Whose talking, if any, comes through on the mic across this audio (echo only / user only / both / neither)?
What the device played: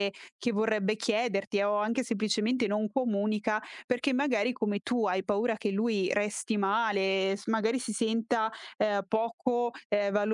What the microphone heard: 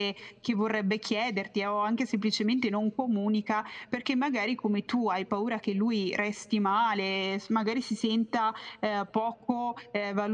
echo only